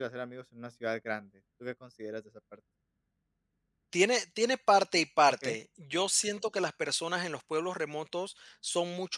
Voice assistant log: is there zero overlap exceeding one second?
Yes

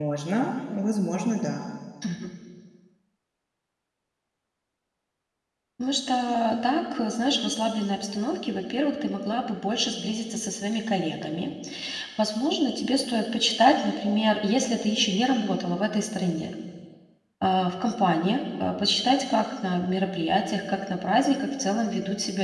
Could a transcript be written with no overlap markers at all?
Yes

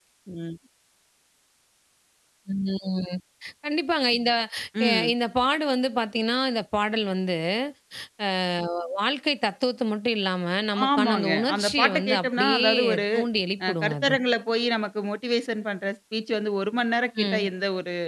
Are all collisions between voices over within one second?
No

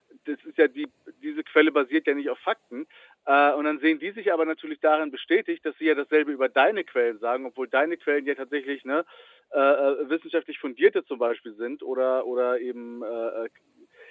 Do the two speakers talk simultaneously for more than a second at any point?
No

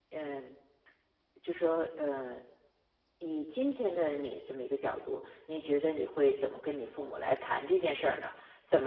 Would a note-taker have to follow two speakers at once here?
No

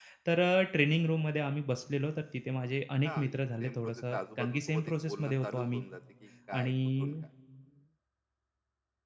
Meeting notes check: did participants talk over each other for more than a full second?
Yes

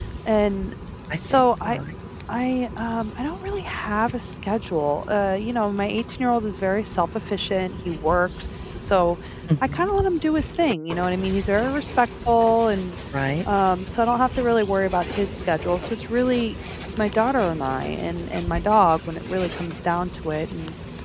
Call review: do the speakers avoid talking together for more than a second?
Yes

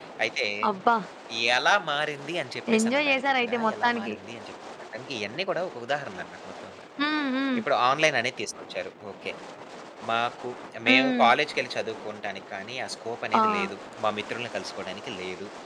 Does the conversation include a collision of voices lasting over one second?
Yes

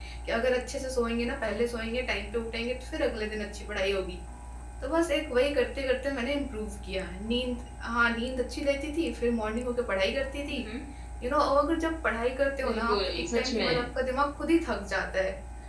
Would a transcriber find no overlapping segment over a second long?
No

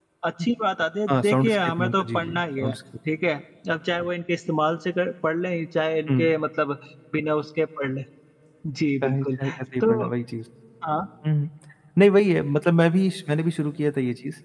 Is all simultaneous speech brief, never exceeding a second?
No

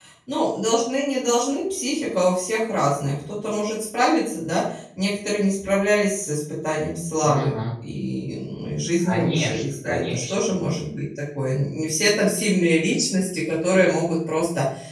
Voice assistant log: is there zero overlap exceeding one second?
No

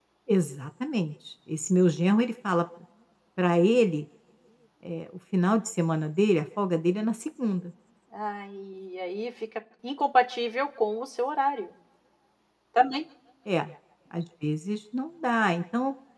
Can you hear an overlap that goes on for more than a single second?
No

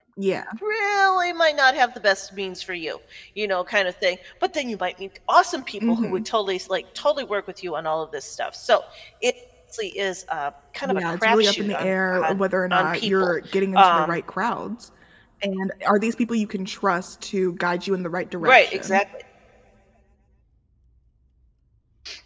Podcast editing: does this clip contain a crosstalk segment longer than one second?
Yes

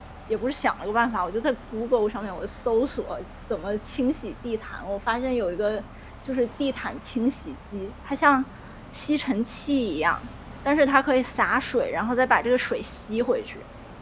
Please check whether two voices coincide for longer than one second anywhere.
No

